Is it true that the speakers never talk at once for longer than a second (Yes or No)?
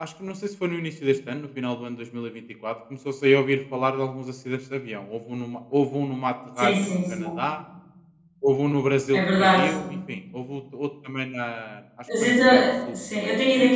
No